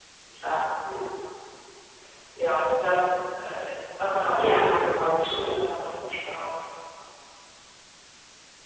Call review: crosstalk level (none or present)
present